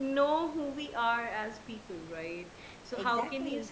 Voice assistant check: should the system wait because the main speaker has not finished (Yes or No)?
Yes